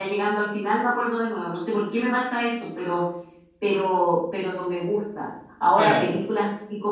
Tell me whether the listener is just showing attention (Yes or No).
Yes